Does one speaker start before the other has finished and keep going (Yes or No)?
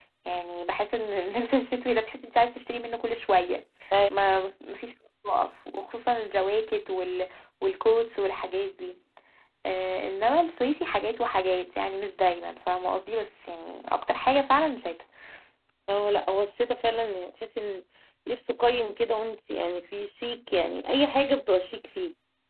No